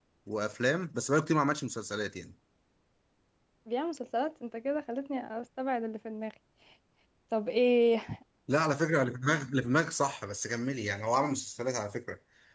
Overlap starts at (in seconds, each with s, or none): none